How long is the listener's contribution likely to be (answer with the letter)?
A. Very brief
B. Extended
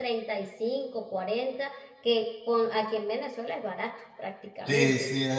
B